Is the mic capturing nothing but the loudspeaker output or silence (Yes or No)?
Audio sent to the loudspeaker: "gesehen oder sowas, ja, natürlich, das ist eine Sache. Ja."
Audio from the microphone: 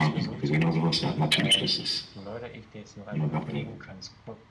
No